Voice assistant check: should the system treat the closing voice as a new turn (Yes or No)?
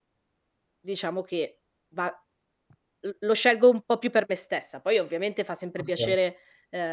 No